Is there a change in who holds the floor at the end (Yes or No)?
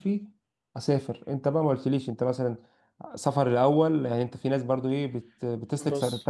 No